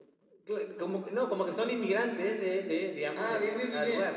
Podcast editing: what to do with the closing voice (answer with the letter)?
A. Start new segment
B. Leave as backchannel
A